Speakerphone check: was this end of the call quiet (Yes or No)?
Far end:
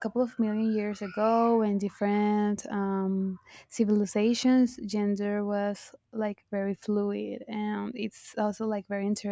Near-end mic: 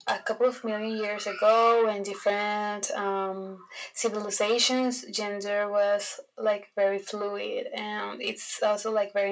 Yes